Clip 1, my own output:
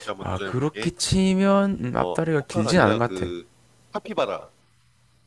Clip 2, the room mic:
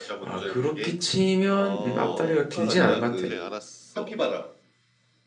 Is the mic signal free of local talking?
No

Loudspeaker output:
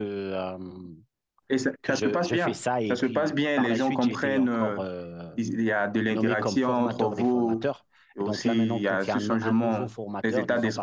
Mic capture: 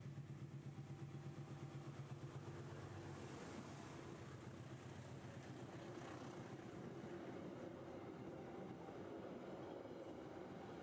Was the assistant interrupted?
No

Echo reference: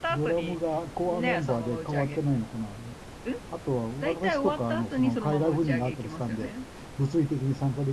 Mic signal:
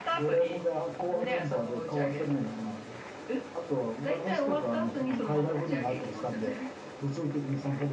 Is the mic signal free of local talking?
Yes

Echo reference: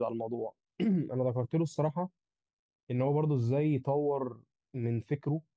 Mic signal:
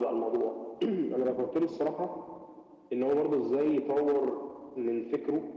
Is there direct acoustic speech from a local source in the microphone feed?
No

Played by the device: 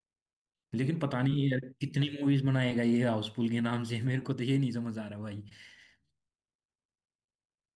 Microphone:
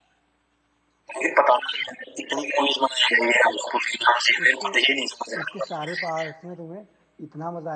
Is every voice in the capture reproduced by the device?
No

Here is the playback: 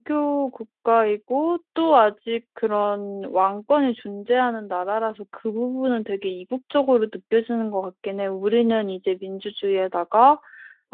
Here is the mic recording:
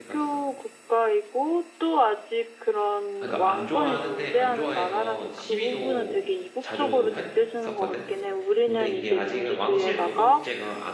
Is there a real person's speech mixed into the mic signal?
Yes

